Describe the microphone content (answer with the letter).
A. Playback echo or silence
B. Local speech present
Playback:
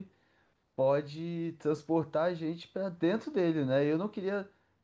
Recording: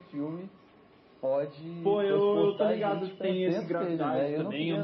B